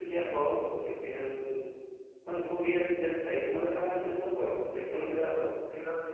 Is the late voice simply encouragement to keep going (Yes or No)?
No